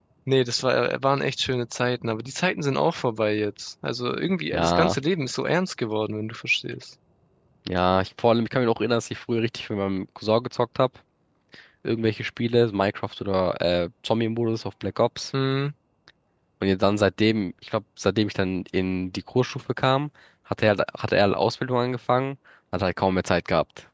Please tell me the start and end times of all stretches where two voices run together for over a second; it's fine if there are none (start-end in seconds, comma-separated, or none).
none